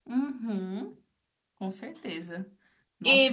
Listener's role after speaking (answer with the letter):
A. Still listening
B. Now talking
B